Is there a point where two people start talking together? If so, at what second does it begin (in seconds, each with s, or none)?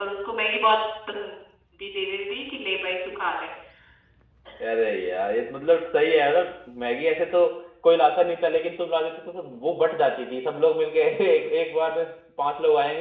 none